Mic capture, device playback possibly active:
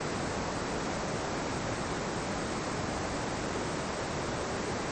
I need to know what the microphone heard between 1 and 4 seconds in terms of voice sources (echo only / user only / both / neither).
neither